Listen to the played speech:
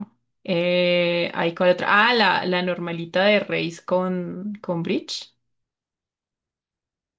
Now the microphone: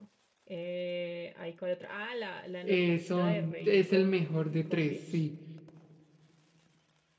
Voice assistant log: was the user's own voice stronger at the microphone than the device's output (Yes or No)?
Yes